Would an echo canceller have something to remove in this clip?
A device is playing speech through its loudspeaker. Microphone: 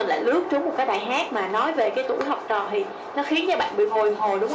Yes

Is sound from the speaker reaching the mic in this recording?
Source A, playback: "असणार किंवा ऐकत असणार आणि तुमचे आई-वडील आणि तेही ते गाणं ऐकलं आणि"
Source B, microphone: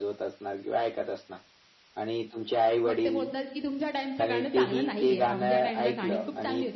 Yes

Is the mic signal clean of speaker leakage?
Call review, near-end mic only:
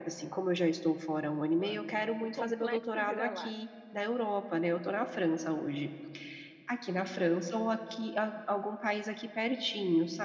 No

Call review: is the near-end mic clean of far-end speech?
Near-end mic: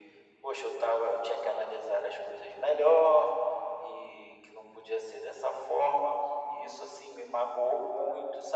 No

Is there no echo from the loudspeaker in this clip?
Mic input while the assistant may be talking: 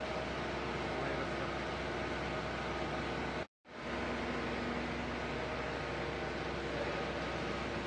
Yes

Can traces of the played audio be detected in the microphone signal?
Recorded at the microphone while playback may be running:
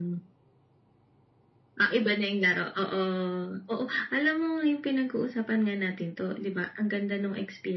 Yes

